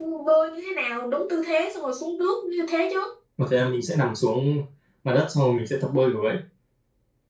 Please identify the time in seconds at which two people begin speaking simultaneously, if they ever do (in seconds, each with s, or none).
none